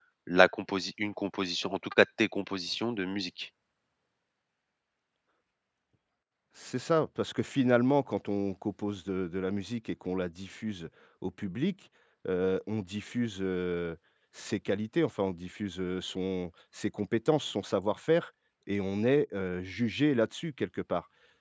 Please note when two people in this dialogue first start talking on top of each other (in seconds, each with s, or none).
none